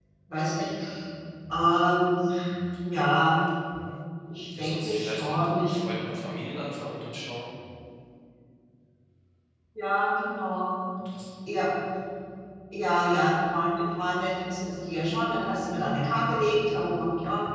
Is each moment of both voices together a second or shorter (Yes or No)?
No